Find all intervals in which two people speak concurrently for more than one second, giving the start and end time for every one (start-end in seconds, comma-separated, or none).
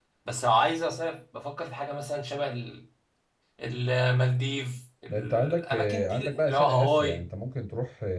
5.1-7.2